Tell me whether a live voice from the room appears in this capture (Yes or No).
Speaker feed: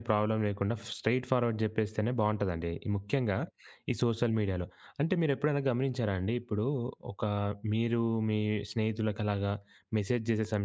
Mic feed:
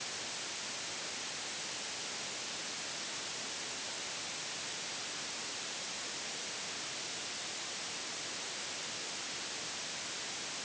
No